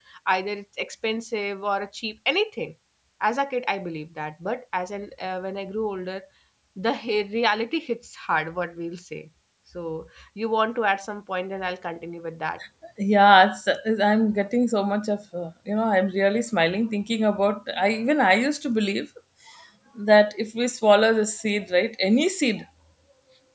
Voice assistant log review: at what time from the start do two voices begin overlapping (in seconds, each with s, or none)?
none